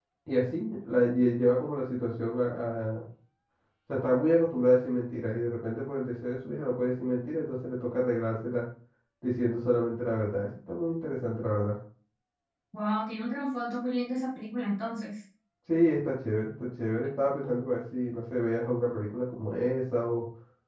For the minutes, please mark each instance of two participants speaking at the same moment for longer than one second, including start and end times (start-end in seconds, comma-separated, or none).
none